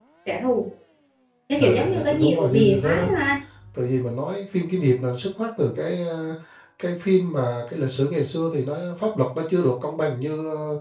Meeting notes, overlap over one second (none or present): present